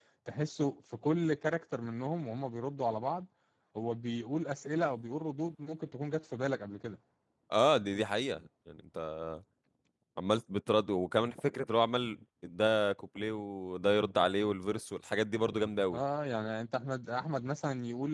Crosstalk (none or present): none